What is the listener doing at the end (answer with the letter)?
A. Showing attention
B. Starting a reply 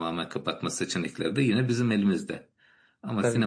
A